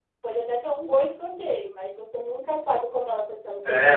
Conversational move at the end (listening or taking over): taking over